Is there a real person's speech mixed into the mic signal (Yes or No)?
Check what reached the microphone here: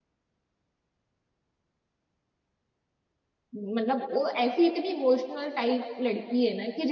Yes